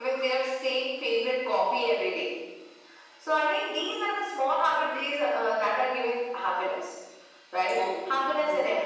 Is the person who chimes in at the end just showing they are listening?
Yes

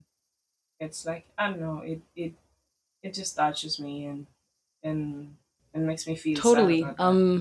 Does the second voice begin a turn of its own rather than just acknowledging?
Yes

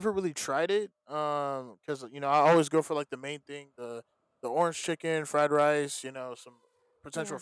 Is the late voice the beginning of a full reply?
No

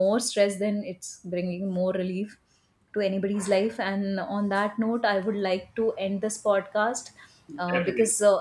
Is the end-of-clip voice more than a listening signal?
No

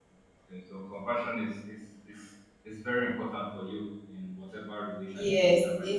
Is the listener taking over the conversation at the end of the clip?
Yes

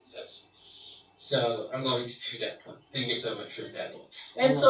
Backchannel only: Yes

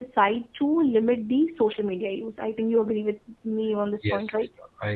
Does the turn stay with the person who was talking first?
No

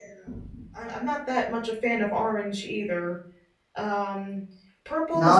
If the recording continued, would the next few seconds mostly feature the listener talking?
Yes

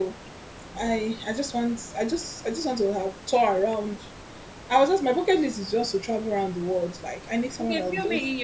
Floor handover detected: Yes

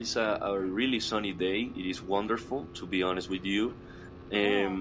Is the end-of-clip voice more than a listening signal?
No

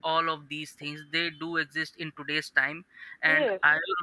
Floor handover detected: No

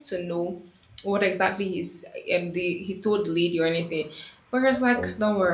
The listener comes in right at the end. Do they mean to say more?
No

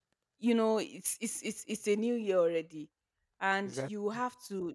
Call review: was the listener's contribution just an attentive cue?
Yes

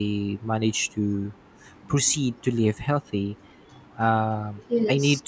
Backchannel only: Yes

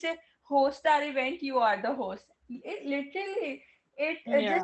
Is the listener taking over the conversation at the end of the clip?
No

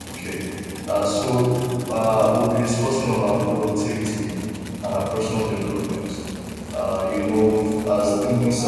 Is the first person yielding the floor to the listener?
No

